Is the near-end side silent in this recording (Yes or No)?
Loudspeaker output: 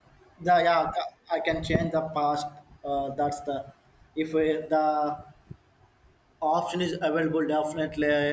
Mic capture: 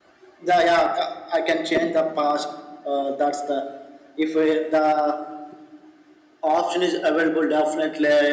Yes